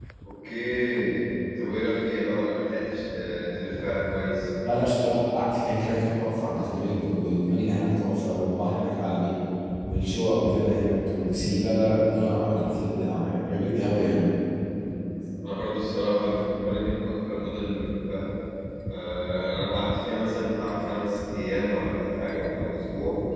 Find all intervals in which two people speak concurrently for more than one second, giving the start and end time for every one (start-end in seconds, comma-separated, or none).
none